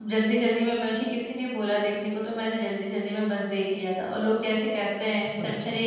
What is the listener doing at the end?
listening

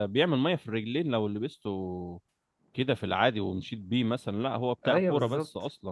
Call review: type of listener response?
taking over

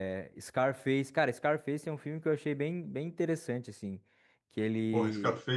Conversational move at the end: taking over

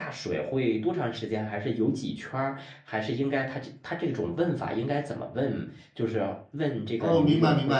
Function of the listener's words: taking over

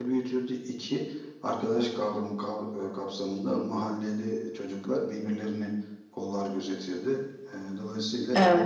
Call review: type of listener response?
listening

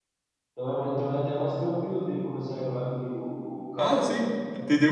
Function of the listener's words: taking over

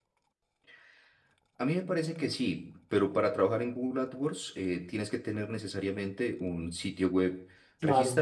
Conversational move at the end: listening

